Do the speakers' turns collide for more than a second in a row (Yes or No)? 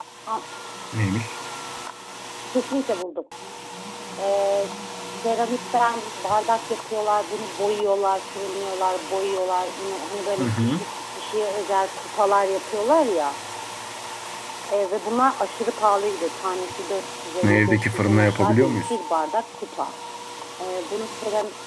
Yes